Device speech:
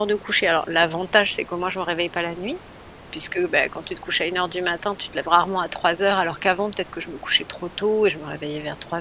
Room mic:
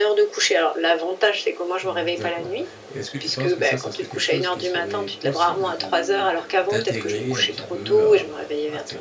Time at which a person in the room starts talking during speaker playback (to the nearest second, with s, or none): 2 s